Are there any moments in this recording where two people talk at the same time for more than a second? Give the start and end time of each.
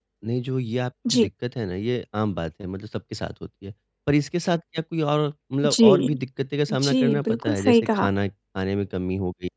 6.7-8.1

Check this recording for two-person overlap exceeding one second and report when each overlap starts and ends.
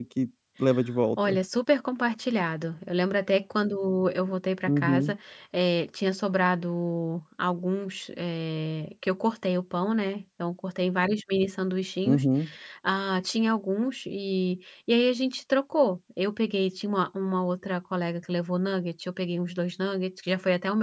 none

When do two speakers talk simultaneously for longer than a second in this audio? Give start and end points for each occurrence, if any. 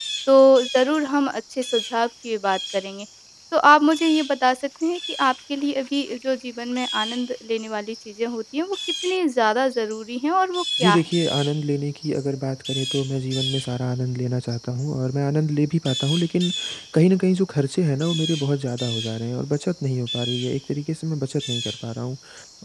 none

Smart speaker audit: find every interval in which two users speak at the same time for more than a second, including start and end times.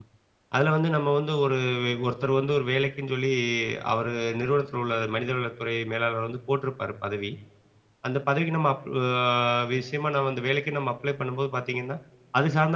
none

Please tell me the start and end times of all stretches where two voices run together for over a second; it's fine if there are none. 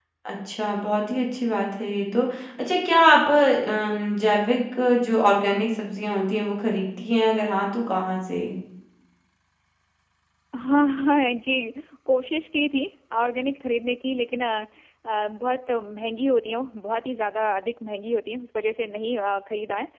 none

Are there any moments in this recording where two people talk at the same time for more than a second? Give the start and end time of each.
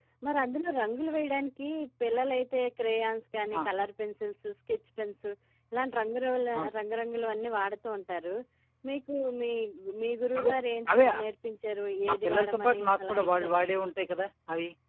12.1-13.6

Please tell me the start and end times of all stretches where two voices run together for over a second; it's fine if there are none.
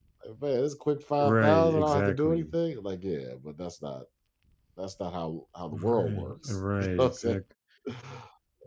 1.2-2.5, 5.7-7.4

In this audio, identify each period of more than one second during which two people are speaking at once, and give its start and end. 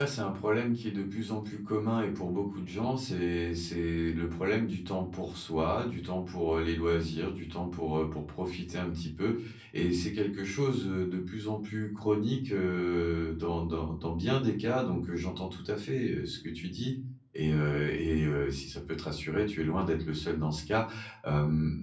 none

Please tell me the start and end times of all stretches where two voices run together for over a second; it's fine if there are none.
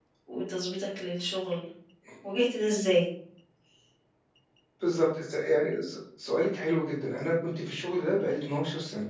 none

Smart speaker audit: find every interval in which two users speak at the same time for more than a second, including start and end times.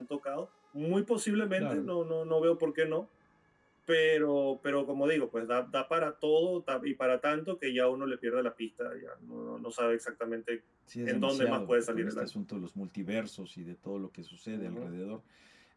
11.1-12.3

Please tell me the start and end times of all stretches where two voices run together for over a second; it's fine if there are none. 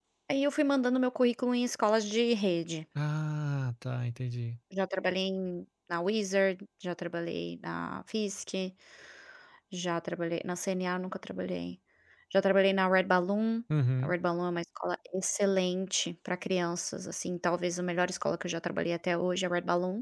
none

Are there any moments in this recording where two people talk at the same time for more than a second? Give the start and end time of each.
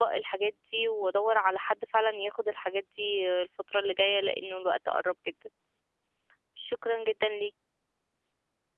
none

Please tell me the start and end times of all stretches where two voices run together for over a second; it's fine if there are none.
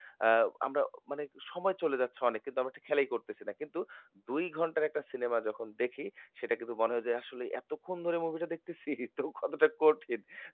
none

